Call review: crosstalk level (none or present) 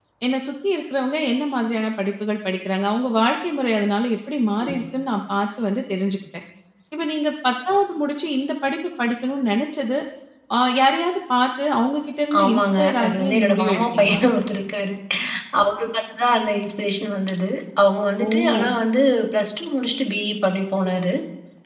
present